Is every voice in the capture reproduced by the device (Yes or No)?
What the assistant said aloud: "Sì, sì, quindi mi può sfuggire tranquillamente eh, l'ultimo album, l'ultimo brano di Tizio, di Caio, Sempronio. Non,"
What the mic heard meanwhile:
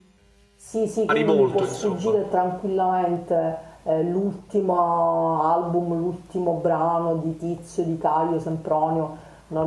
No